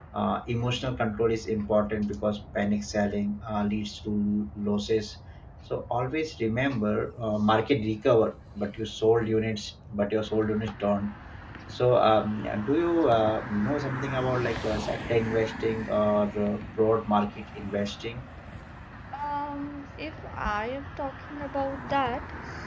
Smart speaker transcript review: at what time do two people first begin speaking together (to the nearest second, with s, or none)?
none